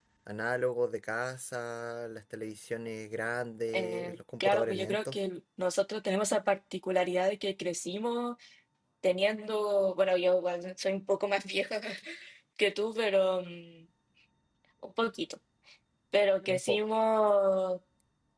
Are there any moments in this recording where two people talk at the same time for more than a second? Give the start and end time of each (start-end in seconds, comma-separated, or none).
3.7-5.2